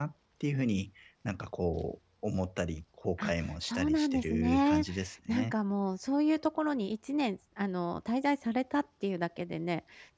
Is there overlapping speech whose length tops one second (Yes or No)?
Yes